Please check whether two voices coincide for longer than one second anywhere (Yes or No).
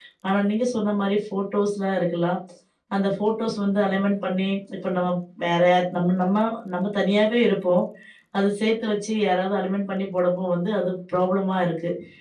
No